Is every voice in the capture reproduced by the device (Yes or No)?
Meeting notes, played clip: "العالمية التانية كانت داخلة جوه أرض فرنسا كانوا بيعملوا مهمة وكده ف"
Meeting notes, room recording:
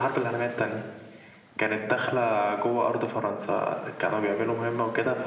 Yes